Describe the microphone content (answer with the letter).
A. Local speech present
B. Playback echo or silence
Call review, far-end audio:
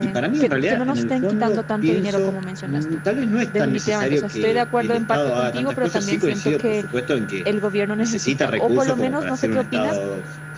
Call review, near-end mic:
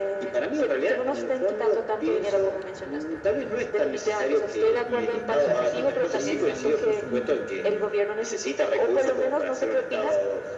A